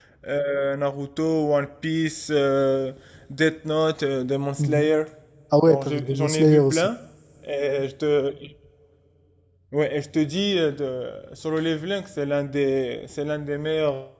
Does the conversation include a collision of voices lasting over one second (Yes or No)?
Yes